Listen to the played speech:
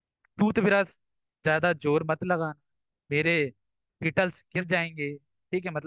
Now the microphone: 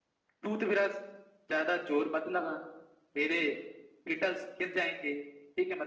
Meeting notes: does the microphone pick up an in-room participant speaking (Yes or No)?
No